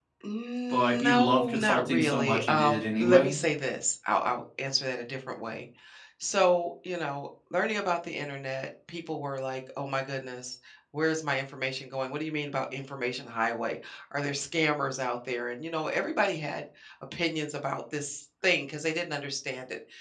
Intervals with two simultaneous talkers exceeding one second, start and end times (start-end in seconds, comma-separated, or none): 0.7-3.4